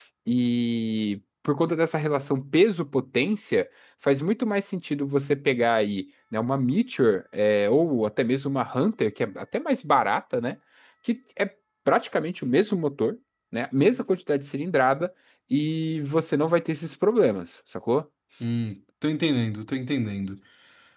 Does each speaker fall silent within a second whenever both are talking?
Yes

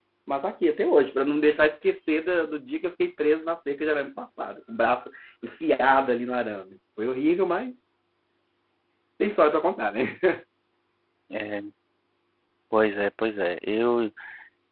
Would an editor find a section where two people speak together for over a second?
No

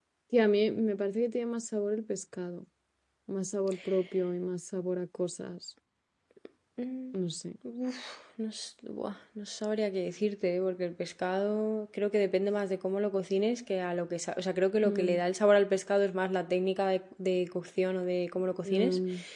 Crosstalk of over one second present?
No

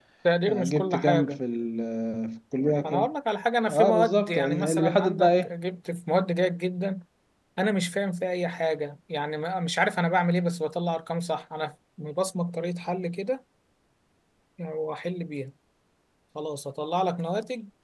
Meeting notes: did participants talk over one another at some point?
Yes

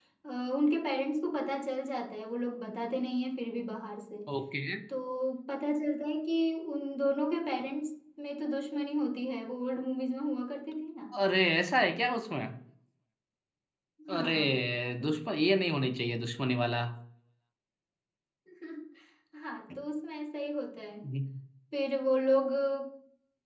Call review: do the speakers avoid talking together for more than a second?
Yes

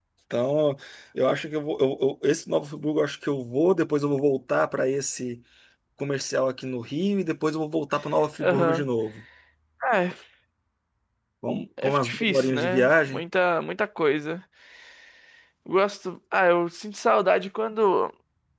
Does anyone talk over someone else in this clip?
Yes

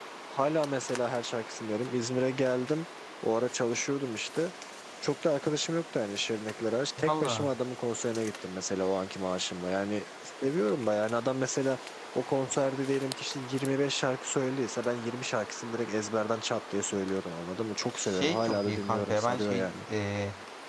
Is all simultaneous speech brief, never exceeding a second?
No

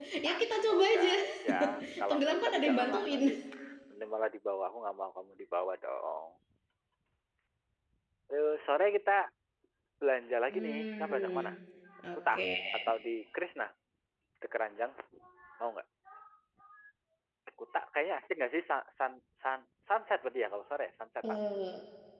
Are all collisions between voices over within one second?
No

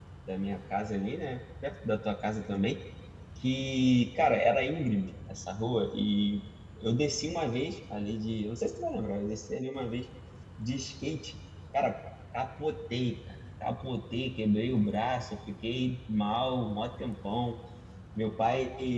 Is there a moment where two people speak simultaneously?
No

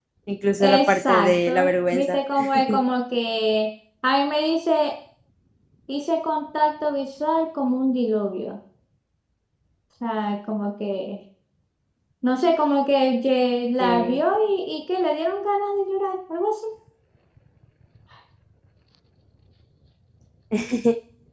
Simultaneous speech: Yes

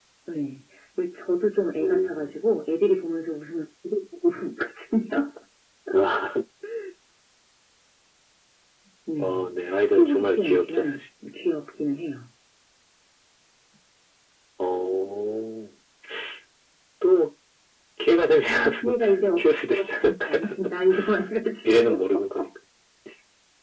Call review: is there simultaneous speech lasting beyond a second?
Yes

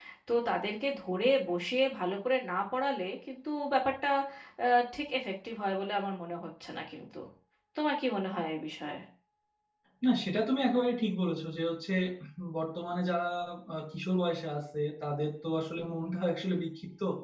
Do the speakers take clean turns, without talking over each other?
Yes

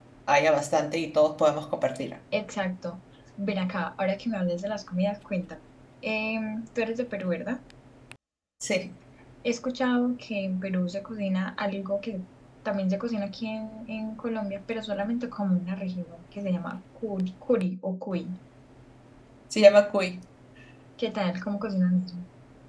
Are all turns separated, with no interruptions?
Yes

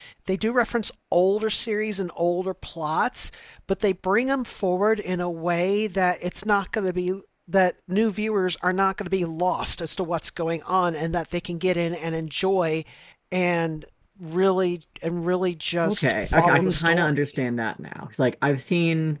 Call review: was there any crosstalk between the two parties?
Yes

